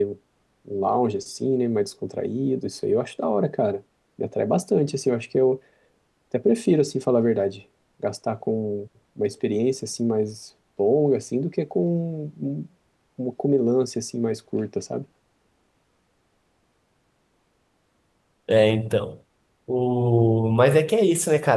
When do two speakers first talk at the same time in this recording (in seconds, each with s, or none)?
none